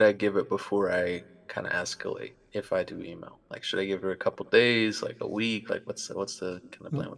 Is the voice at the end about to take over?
Yes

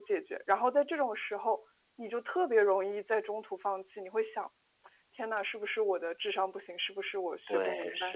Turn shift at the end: Yes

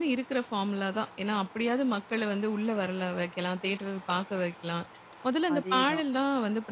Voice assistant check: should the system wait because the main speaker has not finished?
Yes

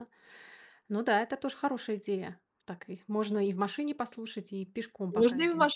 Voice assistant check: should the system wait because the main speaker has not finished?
No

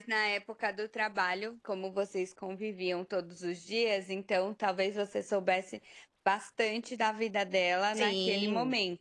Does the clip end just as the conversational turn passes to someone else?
Yes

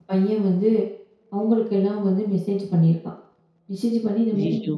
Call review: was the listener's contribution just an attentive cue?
Yes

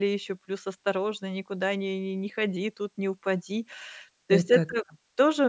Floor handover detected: No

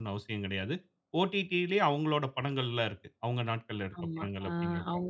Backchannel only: No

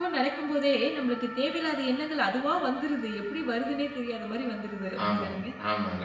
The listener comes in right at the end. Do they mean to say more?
Yes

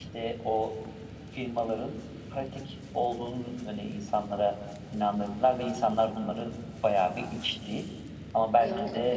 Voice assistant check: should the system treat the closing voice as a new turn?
No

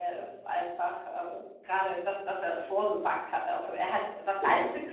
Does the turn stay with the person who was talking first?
Yes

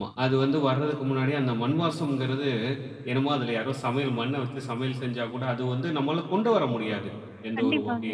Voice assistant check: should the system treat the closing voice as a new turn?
No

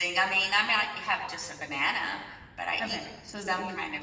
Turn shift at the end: Yes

